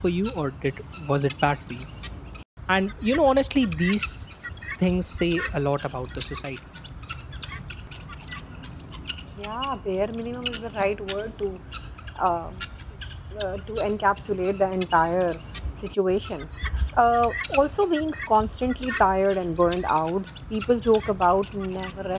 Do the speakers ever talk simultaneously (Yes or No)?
No